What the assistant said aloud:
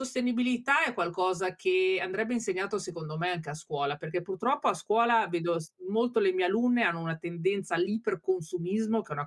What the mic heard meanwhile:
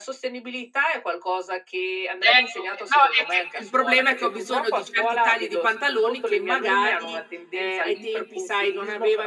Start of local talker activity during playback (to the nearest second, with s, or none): 2 s